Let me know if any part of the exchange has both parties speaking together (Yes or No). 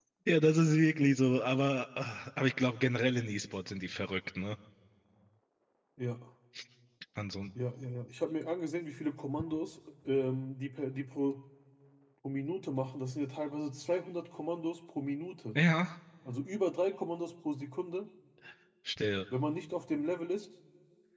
No